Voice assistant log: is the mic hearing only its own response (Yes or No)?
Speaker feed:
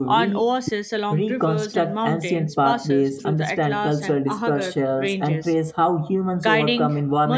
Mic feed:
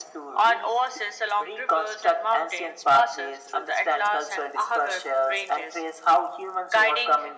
Yes